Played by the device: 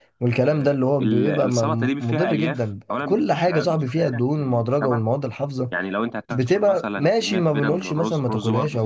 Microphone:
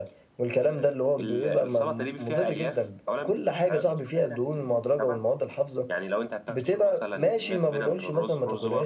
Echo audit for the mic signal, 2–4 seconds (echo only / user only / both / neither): echo only